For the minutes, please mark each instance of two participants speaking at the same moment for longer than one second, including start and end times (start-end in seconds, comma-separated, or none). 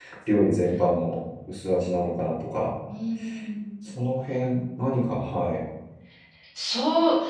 none